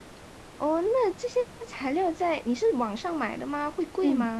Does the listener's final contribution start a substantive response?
Yes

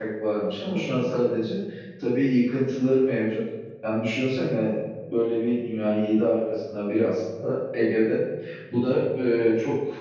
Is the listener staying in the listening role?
Yes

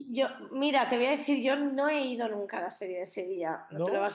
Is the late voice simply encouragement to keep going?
Yes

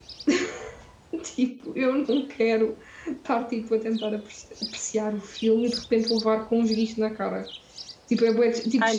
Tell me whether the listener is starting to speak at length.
Yes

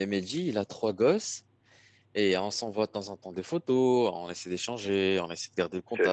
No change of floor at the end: No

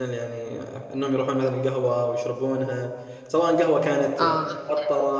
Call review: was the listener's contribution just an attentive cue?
Yes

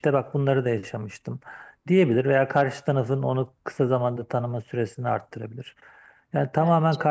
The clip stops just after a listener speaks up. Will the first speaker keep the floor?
Yes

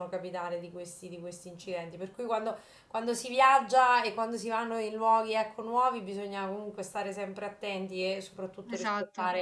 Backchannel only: Yes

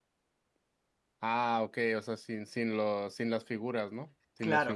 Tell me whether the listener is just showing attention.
No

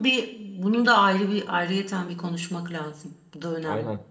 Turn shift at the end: Yes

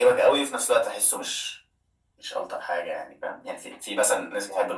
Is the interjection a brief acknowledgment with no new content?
Yes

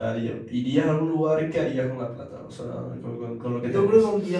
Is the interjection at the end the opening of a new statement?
Yes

